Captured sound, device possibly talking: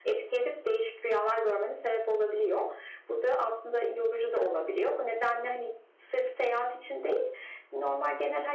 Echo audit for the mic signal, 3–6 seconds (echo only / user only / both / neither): echo only